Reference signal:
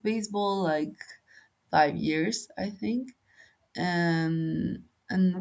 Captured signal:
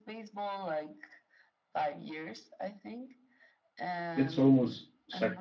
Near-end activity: present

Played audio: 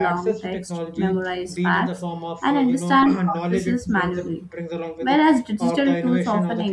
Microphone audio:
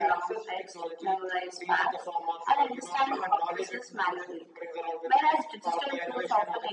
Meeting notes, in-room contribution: none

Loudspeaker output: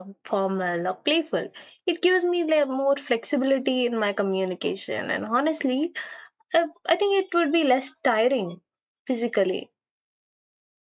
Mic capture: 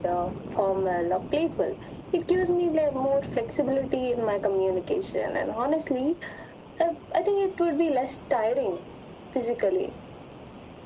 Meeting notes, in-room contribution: none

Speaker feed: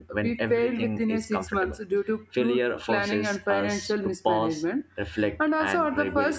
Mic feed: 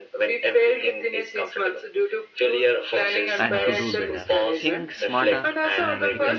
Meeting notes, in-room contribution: present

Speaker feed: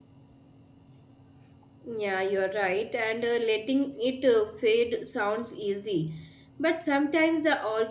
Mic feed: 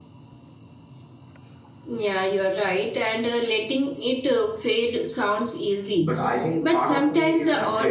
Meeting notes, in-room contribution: present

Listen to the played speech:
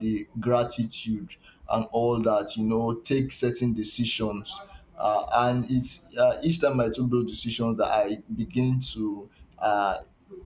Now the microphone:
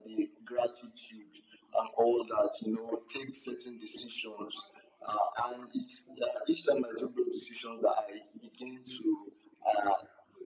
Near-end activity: none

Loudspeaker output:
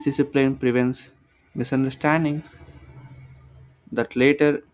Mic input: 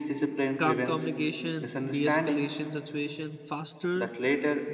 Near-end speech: present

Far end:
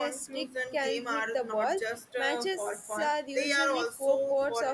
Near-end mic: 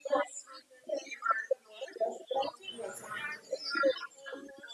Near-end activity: present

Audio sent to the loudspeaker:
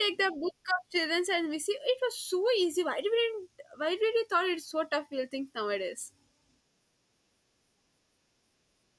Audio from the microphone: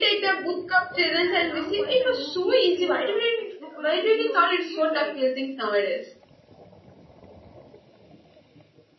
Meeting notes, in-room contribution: present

